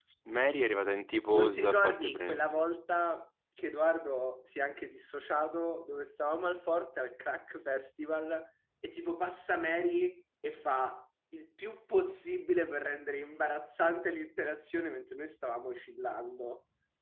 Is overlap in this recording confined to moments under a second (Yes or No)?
No